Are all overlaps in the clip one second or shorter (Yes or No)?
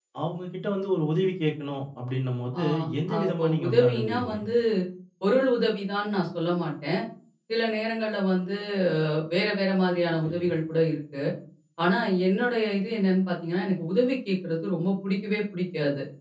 No